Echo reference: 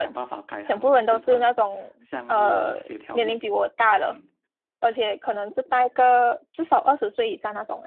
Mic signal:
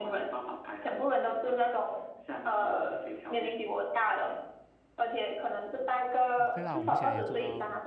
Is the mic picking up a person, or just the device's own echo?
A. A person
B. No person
A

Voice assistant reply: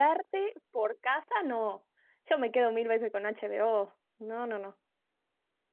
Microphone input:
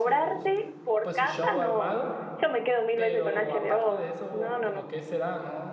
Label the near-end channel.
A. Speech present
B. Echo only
A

